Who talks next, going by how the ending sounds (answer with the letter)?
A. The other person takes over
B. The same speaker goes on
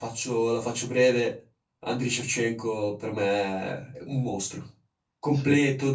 B